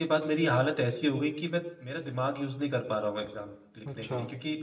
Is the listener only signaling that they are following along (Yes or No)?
Yes